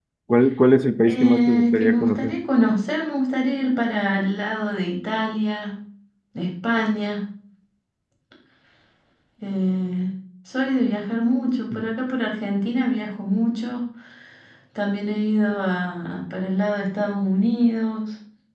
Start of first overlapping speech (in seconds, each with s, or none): 1.1 s